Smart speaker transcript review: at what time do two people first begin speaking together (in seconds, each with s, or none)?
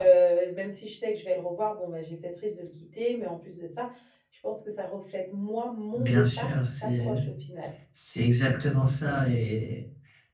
5.9 s